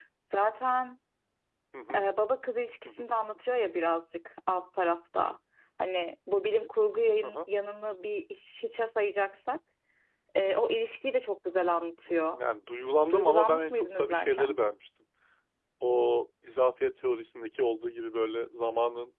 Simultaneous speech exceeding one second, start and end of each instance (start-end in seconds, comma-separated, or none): 13.1-14.6